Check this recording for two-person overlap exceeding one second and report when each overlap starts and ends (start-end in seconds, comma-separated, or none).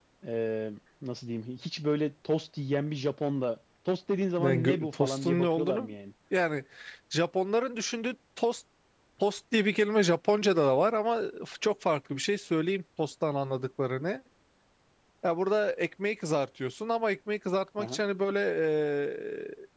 4.4-5.9